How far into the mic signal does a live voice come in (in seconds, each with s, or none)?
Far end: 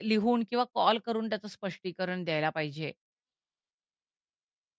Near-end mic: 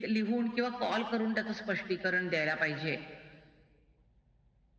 none